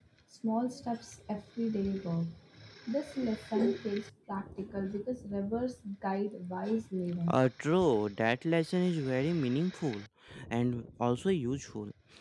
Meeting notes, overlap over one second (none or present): none